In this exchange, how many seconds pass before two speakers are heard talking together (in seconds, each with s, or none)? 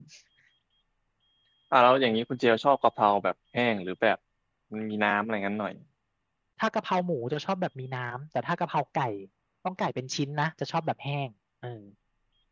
none